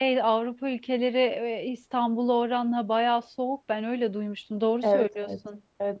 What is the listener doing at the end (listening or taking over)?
taking over